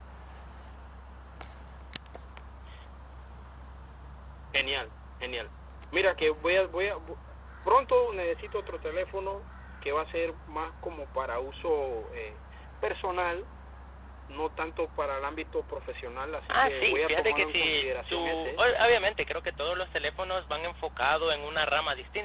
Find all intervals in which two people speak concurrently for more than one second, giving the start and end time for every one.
16.5-18.6

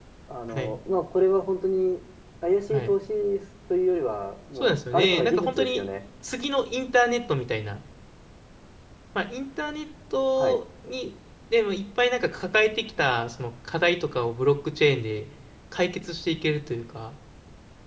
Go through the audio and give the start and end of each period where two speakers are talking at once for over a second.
4.6-5.8

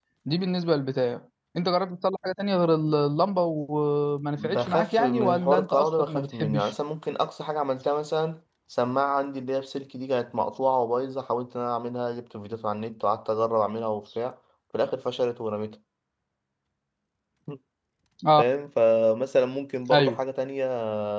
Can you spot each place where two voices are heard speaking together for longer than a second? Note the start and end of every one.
4.4-6.7

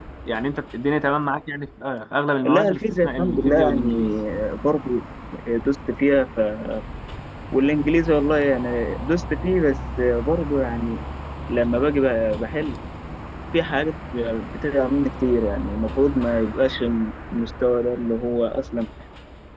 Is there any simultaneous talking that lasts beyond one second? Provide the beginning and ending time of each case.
2.4-4.1

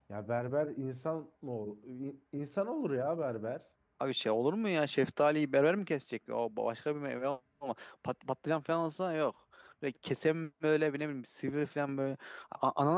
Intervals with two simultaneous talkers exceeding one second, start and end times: none

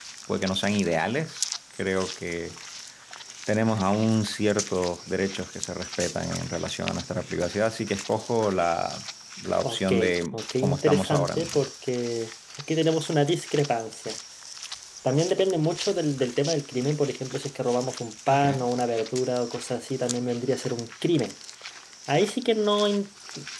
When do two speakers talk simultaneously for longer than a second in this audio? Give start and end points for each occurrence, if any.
10.3-11.6

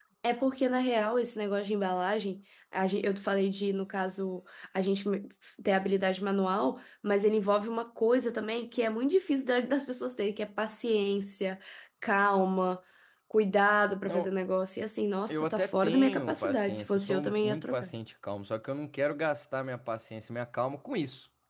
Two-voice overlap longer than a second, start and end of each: 15.3-17.9

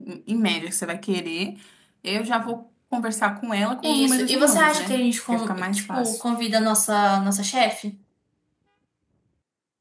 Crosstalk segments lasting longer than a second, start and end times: 3.8-6.2

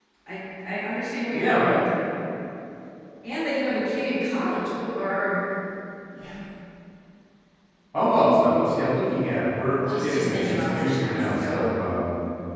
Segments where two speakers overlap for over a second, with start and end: 9.9-11.7

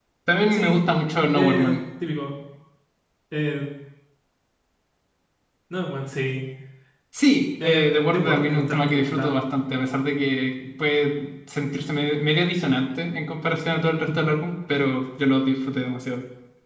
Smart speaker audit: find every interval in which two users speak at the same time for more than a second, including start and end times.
7.6-9.3

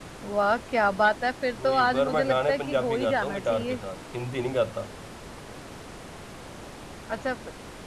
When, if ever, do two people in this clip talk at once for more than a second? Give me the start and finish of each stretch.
1.6-3.8

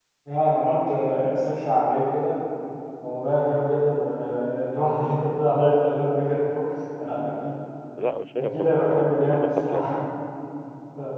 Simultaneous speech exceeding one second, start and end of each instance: 8.5-10.1

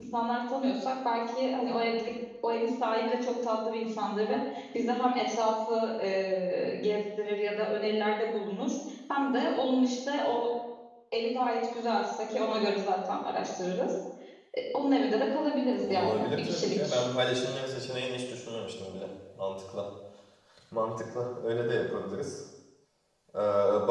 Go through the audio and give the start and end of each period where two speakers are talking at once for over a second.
15.8-17.0

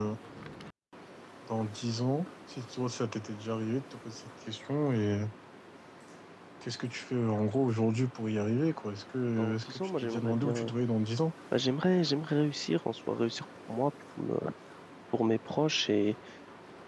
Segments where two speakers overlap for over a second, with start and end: 9.4-10.7

